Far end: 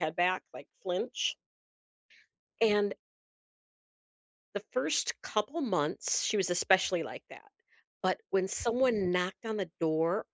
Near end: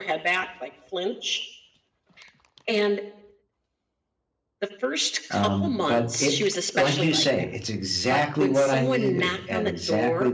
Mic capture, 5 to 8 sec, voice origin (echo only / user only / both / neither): both